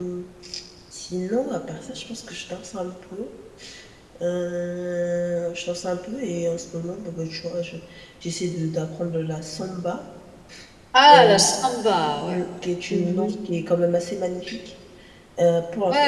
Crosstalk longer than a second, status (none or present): none